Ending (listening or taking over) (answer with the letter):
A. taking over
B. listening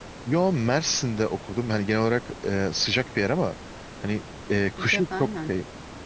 B